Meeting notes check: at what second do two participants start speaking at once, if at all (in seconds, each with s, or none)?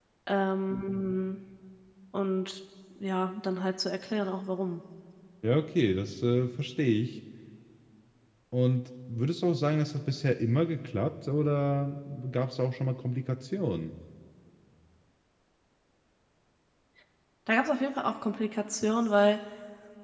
none